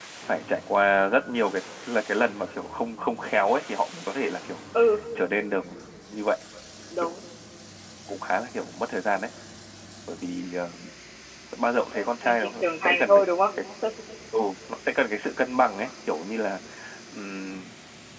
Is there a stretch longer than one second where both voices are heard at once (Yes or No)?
Yes